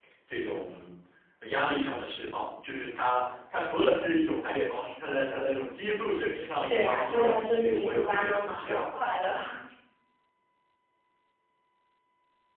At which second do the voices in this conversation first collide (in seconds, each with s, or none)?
6.7 s